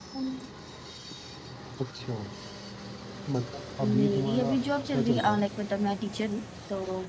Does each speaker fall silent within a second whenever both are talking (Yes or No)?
No